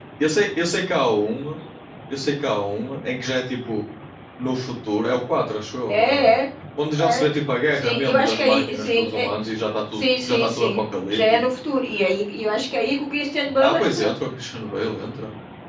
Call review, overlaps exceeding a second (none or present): present